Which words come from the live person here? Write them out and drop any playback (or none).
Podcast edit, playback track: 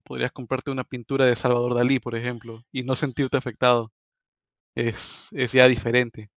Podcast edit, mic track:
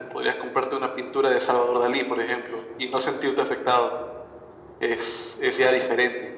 none